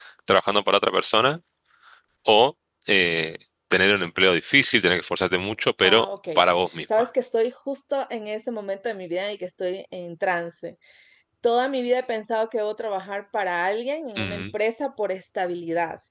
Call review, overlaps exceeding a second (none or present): none